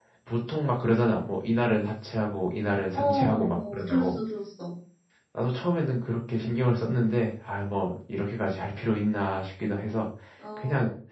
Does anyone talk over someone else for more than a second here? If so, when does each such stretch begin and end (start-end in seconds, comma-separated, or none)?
3.0-4.2